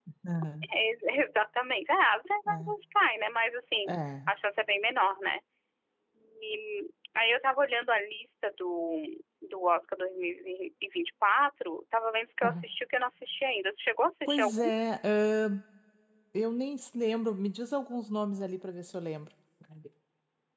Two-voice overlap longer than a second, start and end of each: none

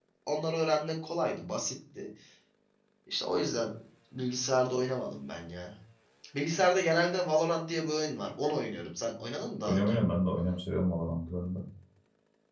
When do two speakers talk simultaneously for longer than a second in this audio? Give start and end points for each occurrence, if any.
none

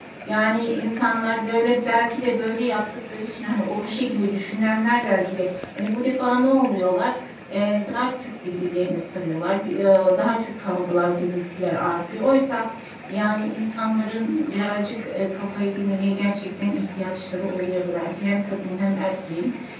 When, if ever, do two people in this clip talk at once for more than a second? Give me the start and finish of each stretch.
none

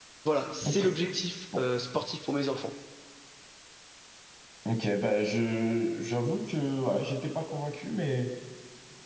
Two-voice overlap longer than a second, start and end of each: none

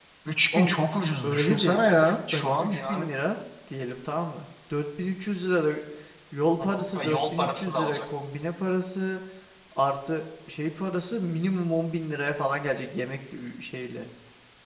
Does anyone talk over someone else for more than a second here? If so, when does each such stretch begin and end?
1.2-3.0, 6.6-8.0

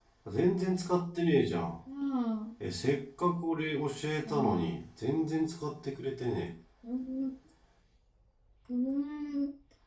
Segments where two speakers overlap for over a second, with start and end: none

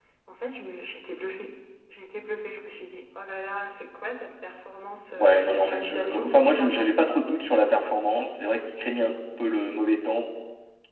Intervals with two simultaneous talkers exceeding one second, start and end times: 5.2-7.2

